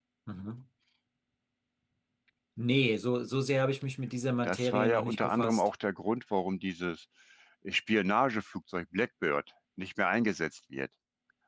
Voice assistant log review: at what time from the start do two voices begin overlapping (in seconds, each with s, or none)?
4.4 s